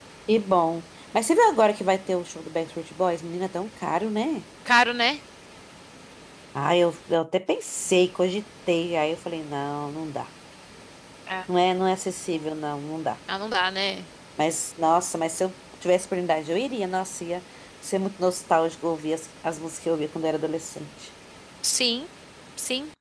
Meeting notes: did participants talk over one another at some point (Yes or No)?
No